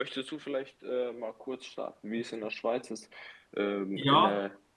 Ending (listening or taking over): listening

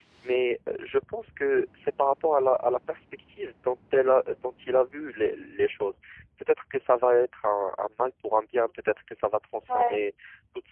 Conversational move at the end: listening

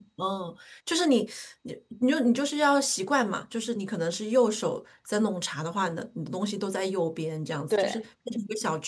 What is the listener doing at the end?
listening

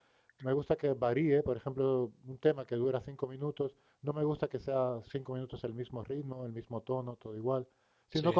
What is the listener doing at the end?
listening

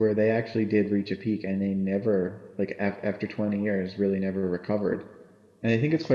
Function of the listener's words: listening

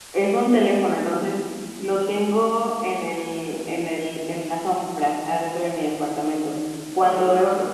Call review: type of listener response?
listening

